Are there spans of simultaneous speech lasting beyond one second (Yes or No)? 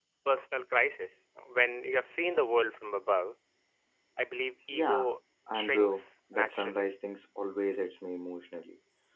Yes